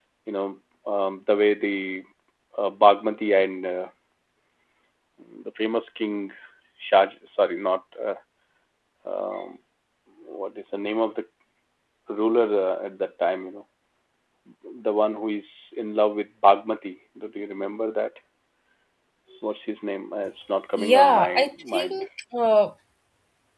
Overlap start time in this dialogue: 20.8 s

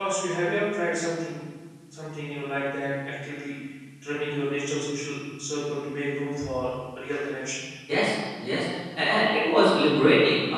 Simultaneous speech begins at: none

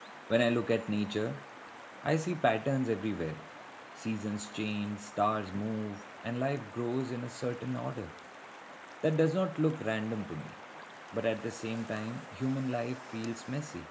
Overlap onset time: none

